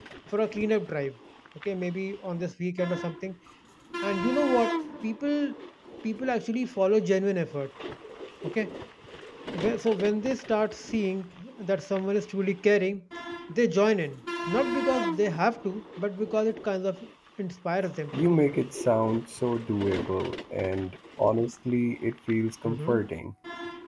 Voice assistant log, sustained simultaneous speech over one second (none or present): none